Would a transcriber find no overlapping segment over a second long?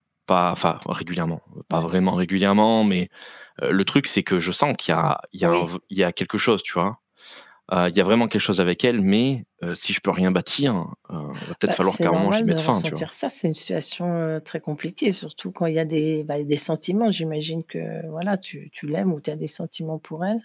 No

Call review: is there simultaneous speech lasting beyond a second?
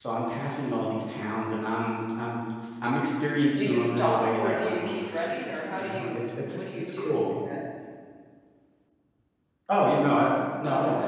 Yes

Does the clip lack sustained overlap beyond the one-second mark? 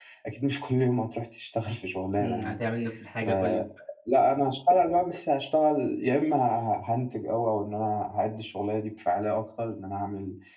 Yes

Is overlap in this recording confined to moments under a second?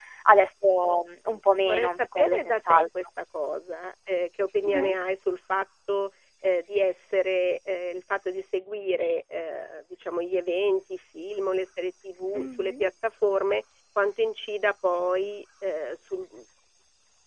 No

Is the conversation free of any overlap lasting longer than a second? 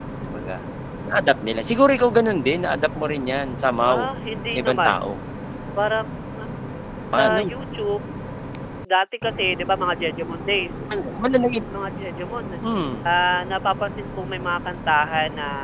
Yes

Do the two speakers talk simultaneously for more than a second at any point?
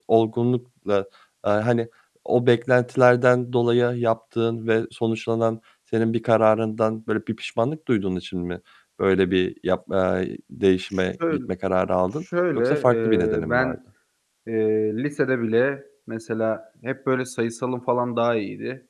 Yes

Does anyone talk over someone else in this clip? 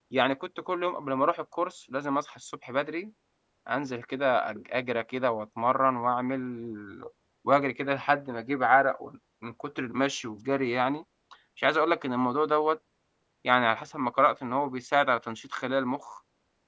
No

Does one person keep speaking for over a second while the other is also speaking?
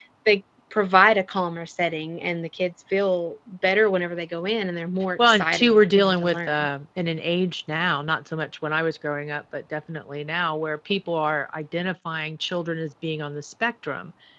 Yes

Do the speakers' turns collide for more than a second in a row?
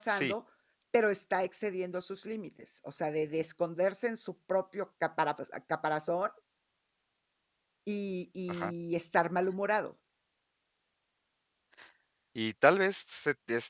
No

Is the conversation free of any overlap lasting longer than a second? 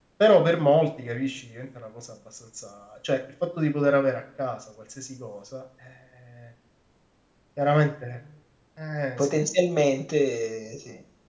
Yes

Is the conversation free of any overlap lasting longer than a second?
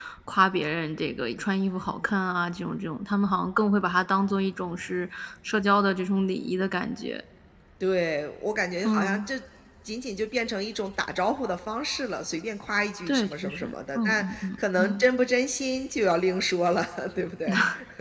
No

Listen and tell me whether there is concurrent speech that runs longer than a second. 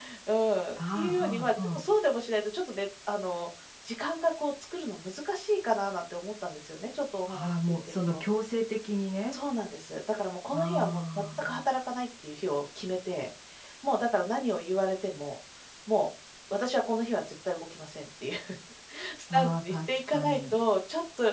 Yes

